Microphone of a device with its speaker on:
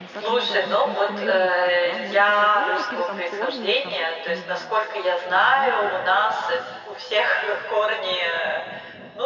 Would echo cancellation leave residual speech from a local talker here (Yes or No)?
Yes